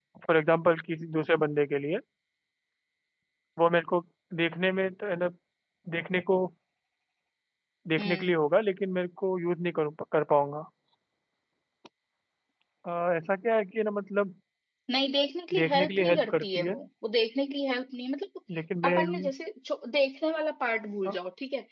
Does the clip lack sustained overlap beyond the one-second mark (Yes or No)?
No